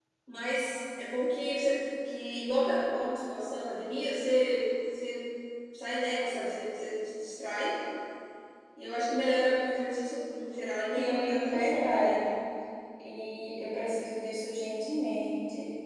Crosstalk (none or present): present